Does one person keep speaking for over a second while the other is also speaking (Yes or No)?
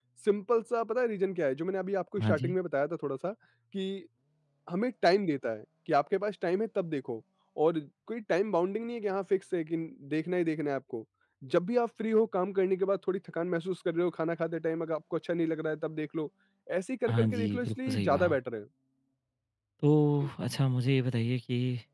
Yes